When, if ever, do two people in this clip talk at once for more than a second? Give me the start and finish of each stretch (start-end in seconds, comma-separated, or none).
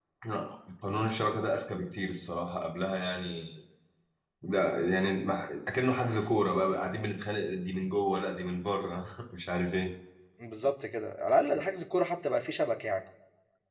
none